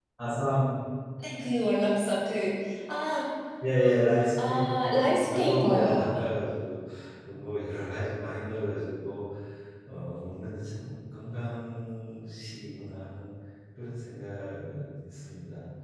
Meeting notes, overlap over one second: present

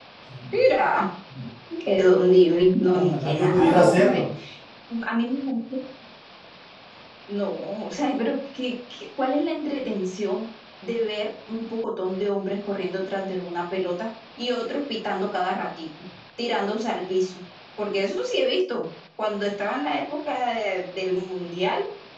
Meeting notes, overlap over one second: present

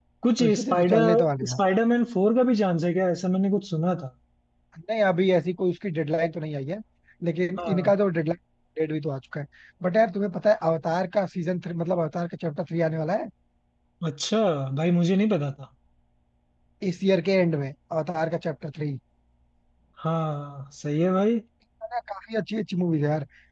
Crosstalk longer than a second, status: present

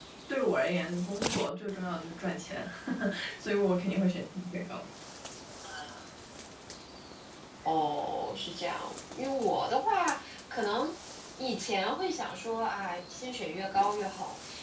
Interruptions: none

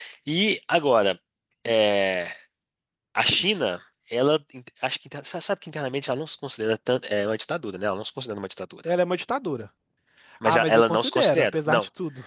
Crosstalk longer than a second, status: present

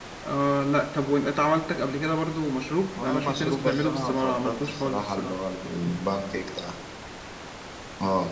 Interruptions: present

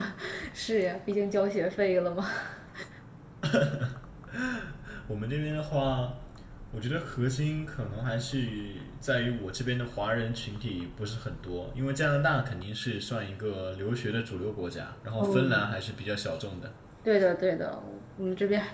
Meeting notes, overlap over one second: none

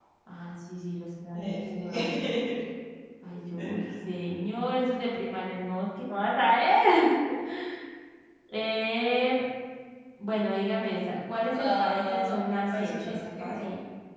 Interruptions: present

